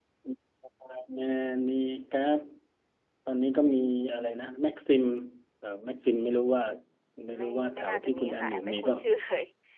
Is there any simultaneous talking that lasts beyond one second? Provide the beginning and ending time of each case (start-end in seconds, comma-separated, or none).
7.3-9.0